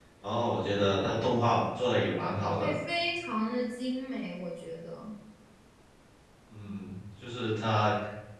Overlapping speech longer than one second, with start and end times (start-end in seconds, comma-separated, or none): none